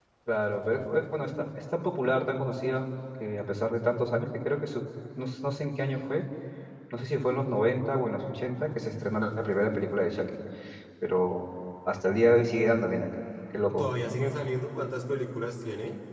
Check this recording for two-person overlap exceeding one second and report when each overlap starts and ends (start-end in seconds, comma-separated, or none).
none